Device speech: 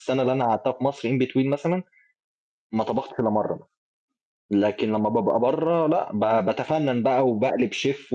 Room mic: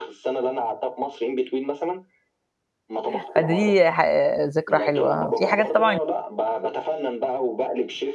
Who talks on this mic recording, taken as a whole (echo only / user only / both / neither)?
both